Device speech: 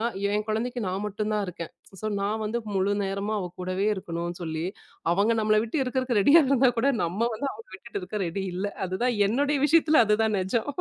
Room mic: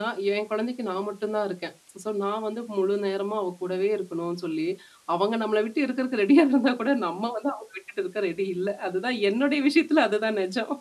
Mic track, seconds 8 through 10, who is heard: echo only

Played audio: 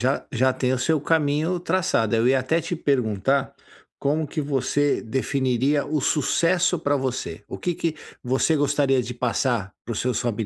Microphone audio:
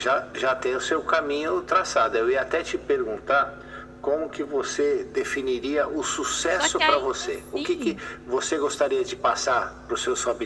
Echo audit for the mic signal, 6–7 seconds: both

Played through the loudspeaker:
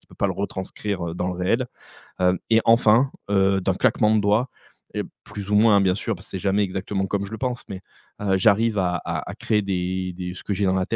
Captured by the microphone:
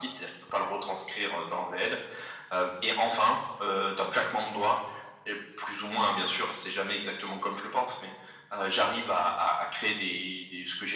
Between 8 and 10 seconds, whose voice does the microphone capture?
echo only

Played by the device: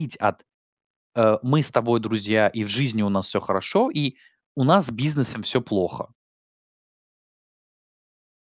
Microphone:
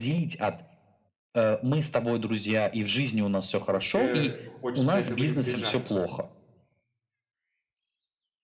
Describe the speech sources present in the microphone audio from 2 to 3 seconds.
echo only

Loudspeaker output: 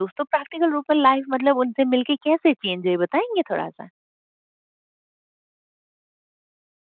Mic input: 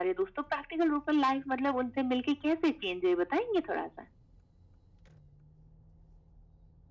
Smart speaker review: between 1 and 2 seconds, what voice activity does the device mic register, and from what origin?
echo only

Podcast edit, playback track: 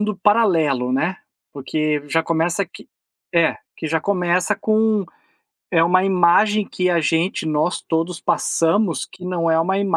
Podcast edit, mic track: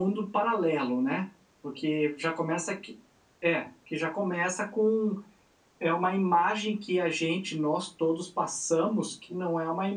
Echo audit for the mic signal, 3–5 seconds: echo only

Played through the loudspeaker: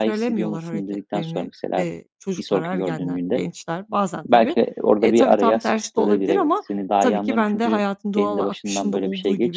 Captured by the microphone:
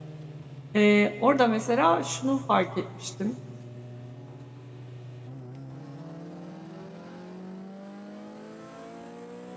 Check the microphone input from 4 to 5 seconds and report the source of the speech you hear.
neither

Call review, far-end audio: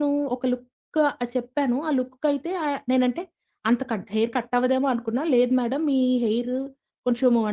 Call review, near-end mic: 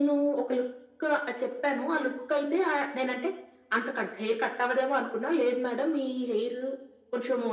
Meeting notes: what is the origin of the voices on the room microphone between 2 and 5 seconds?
echo only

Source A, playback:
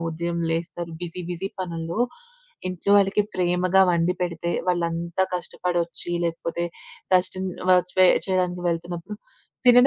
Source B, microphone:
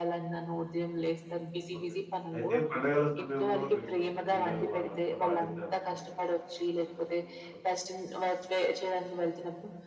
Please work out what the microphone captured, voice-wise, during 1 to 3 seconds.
both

